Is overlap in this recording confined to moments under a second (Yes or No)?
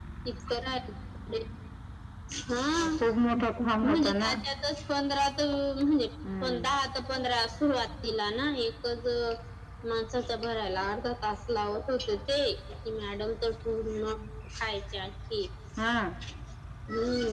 Yes